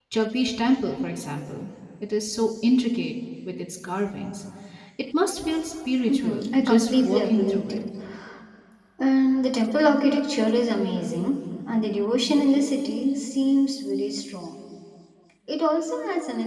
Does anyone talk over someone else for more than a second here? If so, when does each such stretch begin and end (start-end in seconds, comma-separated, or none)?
6.1-7.8